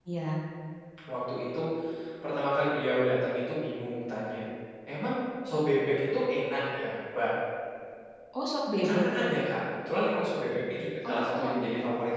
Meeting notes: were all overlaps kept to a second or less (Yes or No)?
Yes